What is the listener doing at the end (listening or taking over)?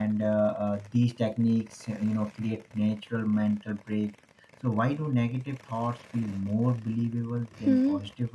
taking over